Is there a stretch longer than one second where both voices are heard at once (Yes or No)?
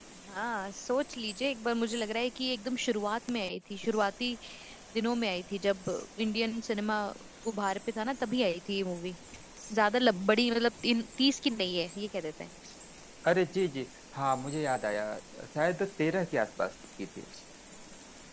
No